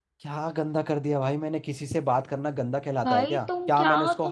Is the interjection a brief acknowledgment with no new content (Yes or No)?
No